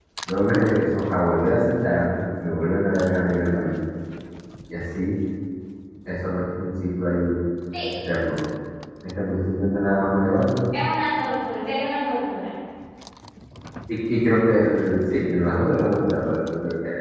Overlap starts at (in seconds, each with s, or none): none